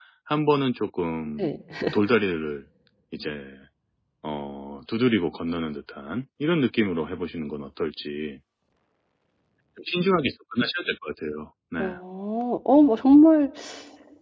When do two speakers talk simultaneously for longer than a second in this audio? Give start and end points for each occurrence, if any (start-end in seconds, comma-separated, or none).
none